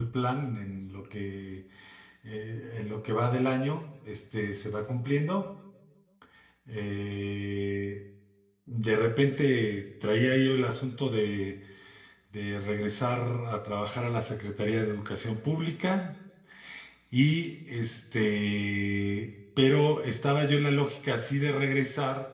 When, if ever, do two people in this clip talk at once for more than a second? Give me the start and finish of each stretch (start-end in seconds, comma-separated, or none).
none